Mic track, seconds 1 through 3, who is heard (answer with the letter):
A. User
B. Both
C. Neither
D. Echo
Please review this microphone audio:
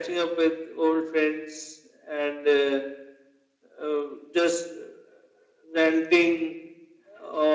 D